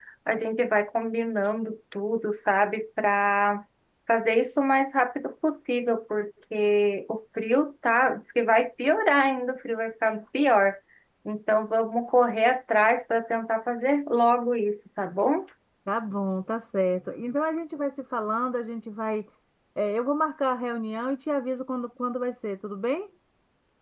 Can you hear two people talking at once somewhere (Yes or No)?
No